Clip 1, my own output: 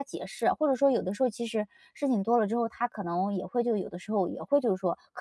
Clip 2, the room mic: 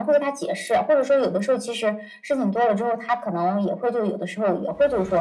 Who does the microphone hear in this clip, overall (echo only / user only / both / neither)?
echo only